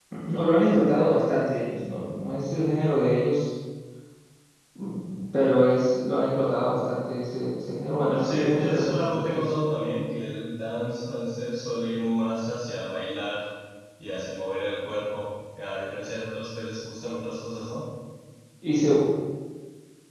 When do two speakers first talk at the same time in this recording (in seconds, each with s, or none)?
8.2 s